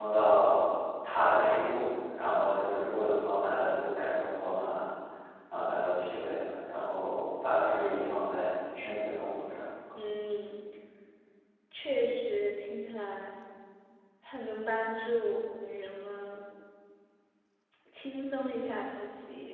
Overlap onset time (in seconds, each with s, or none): none